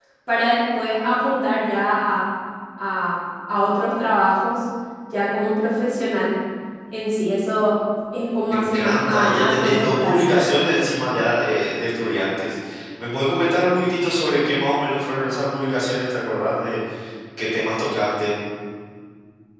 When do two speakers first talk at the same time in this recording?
8.5 s

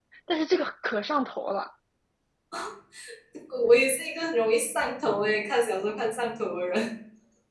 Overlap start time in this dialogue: none

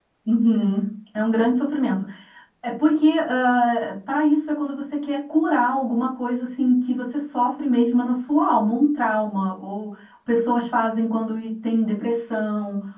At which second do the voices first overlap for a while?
none

